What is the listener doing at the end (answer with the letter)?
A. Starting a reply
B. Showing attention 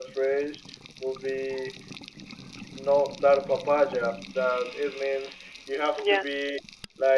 B